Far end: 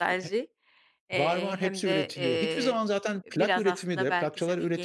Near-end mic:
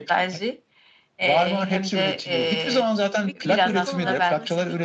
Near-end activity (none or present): present